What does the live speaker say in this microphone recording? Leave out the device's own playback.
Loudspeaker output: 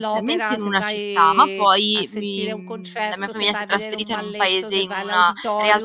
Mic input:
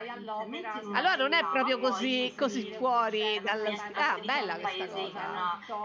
Allora non è proprio così, così fuori dallo sti ah, bella questa cosa.

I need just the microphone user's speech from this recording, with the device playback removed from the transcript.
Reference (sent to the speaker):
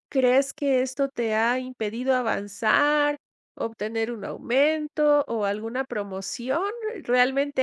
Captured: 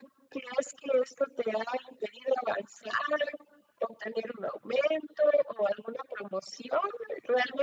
none

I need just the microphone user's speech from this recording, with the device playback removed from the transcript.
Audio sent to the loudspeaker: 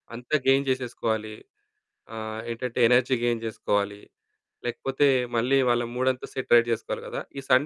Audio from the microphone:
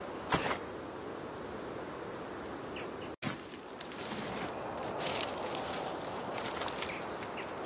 none

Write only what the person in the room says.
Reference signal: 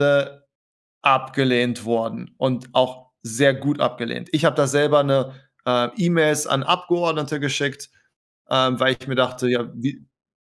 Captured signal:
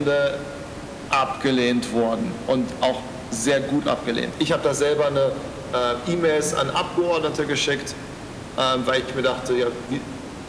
none

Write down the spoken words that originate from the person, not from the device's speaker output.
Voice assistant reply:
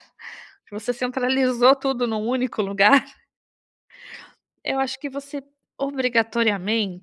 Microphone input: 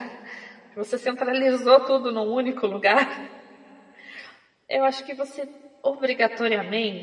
none

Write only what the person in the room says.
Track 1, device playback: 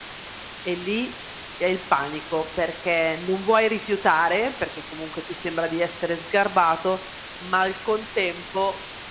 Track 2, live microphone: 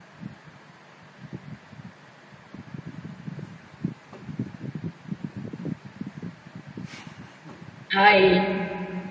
Ahi.

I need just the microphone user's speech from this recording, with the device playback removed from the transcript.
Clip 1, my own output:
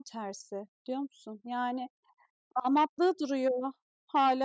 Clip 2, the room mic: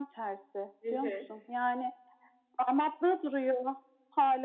Hı hı.

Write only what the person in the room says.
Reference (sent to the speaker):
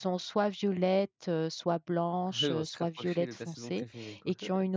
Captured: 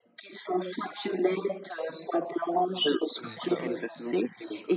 D'accord, ouais.

